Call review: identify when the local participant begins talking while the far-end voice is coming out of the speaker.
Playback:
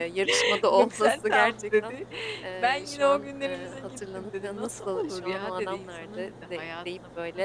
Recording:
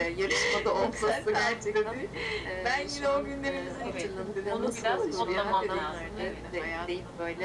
3.8 s

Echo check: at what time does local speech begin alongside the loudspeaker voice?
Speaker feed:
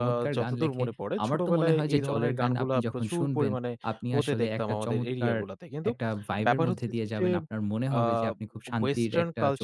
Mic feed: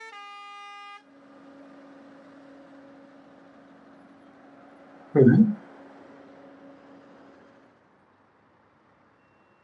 5.1 s

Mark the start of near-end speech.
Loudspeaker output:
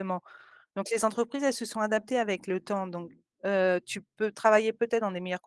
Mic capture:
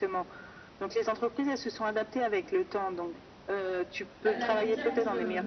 4.2 s

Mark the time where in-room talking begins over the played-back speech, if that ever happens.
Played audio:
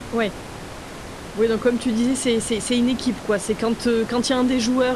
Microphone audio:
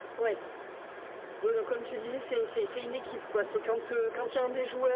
none

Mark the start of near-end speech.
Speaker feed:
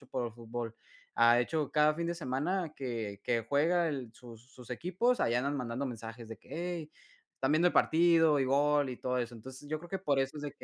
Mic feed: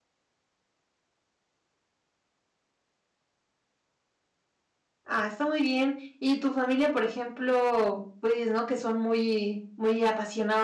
5.1 s

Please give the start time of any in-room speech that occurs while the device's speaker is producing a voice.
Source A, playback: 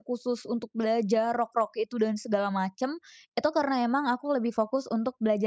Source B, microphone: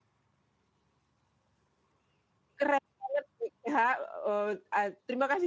2.6 s

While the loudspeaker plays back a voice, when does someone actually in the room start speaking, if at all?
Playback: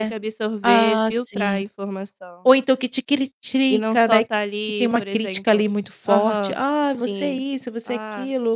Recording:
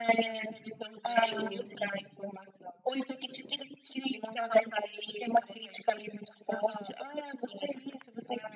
1.3 s

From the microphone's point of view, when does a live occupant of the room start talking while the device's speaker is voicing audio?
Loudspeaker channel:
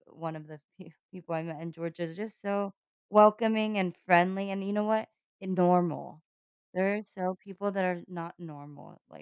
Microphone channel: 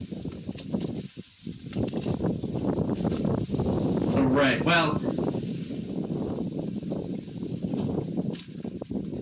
4.1 s

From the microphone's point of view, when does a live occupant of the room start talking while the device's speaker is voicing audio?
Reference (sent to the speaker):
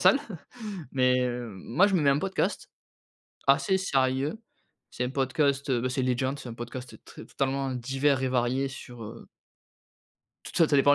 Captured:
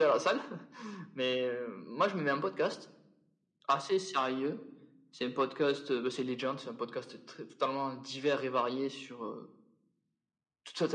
none

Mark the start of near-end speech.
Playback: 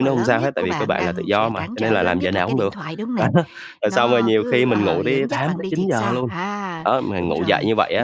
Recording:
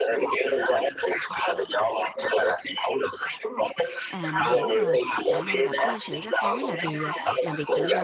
4.1 s

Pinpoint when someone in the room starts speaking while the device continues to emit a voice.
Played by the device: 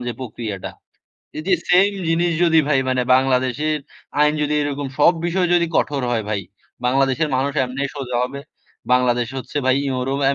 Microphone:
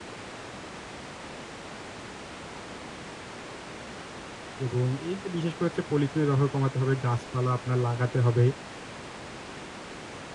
4.7 s

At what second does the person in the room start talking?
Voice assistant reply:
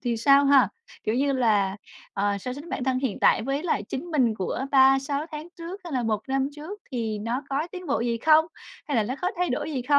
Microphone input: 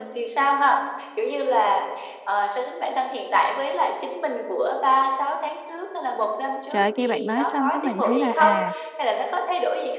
6.7 s

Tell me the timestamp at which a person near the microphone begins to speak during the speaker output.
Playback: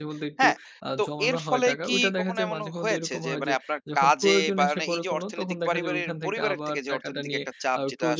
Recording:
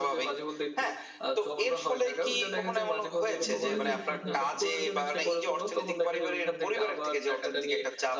3.5 s

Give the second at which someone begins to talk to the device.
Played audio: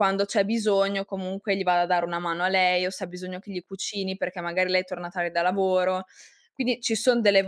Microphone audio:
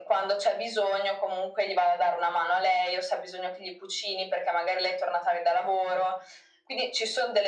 none

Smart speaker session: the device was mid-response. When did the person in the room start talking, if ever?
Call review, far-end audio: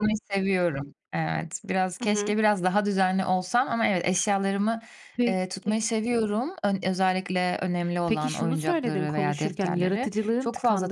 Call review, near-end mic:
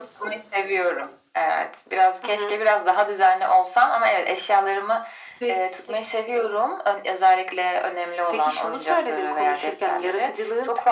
none

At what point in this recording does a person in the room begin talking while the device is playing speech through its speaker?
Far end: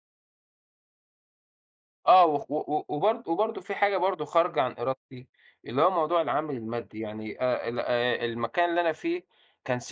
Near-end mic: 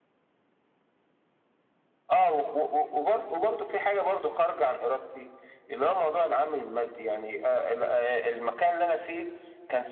none

